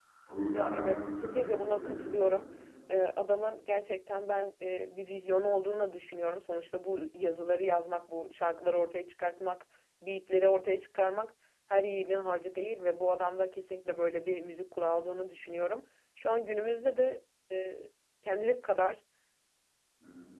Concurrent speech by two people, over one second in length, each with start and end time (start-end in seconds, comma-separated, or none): 0.5-2.2